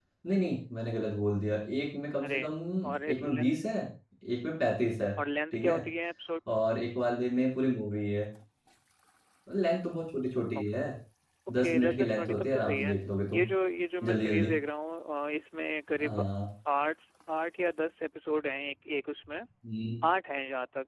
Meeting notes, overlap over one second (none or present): present